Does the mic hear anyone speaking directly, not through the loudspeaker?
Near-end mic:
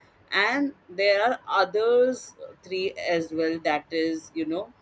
Yes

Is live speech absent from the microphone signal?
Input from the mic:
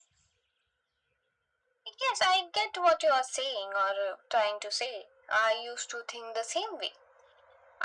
Yes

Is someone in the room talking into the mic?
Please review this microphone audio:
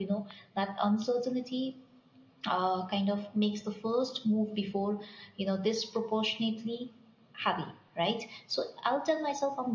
Yes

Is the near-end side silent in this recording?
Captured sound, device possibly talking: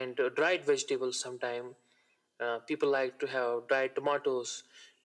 Yes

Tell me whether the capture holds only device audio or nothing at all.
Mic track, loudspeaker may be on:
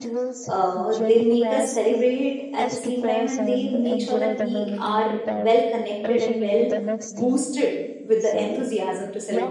No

